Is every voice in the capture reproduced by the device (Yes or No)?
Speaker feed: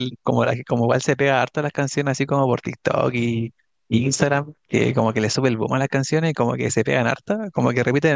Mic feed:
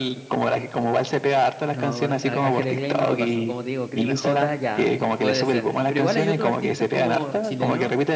No